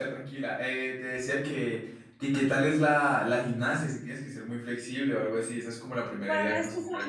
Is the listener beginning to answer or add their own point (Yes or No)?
Yes